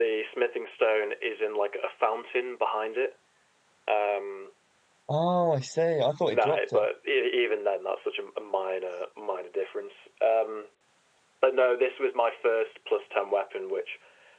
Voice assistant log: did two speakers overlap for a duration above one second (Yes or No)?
No